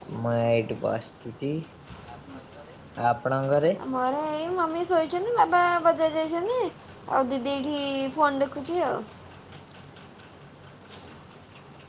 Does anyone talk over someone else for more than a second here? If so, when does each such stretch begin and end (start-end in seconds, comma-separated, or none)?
none